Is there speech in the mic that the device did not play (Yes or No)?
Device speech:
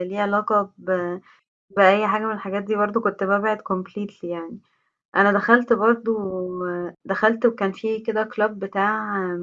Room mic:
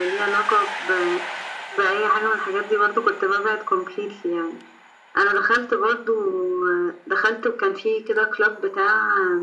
No